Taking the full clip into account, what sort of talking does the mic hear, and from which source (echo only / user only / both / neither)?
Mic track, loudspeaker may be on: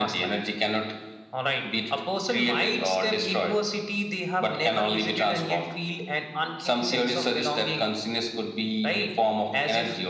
echo only